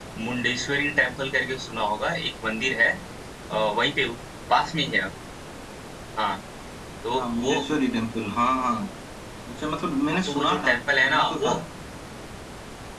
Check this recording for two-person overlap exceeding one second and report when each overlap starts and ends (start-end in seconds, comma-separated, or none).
10.3-11.5